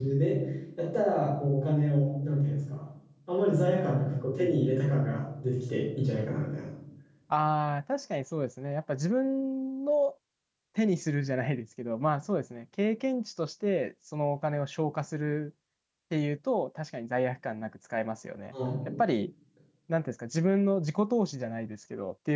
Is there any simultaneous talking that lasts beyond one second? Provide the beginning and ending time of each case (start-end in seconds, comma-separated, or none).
none